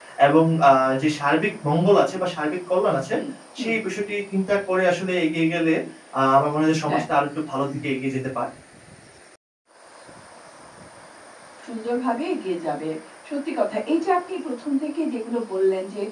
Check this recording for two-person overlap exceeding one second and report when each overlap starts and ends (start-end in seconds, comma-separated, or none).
none